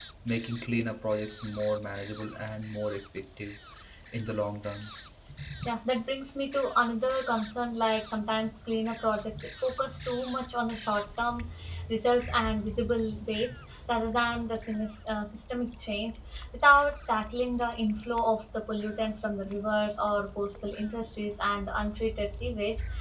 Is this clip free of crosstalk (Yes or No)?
Yes